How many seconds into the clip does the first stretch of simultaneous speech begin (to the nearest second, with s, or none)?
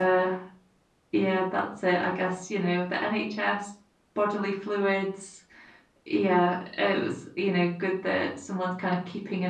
none